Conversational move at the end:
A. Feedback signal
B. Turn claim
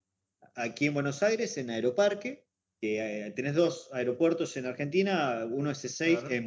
A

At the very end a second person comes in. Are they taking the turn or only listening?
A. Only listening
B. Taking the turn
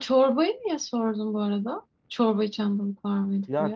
B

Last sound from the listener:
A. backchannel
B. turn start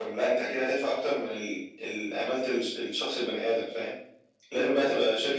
A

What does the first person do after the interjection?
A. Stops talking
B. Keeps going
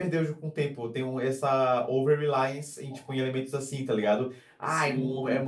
B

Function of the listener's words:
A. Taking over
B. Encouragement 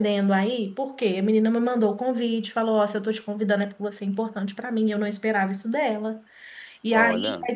B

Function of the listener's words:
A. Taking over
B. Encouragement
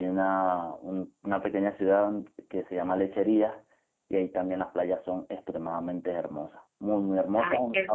B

